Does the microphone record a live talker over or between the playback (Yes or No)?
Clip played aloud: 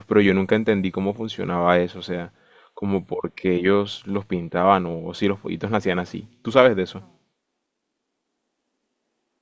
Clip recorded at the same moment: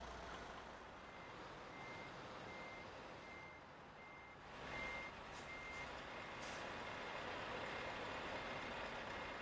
No